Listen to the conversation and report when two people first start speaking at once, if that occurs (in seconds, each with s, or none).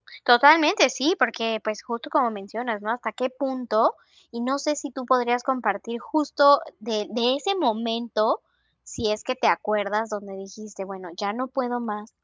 none